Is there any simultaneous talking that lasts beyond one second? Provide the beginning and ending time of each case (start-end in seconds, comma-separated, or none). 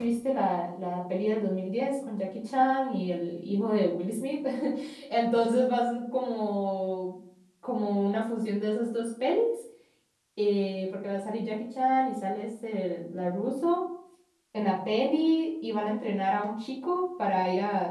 none